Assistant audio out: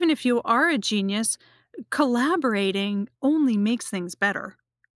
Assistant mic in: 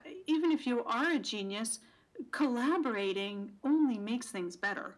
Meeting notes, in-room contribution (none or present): none